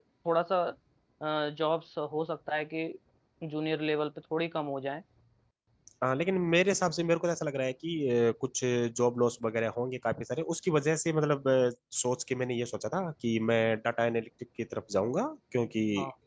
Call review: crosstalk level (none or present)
none